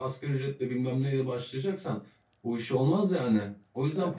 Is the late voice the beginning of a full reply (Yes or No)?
Yes